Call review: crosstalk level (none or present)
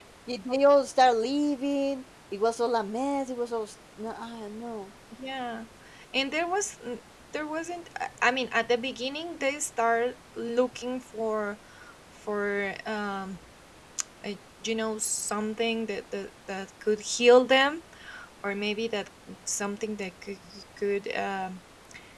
none